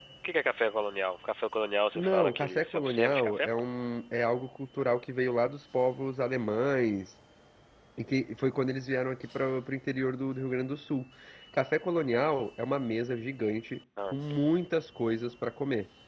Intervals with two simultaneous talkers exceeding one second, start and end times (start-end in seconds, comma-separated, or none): 1.9-3.5